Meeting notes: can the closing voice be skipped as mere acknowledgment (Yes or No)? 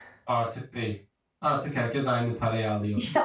No